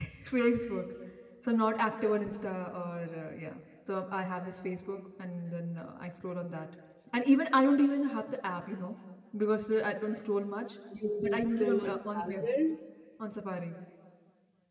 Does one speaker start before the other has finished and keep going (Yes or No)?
Yes